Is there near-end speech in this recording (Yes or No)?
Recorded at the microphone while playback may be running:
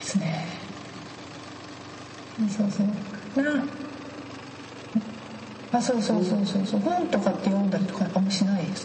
Yes